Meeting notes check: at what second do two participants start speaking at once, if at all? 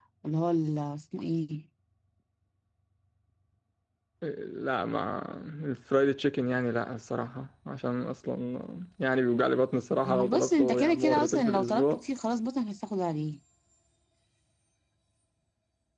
10.0 s

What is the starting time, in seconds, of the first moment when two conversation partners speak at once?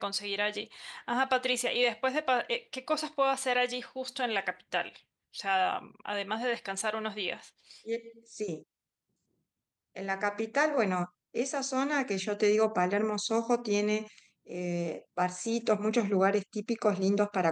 none

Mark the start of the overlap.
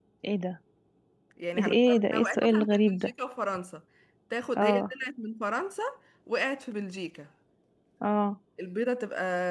1.6 s

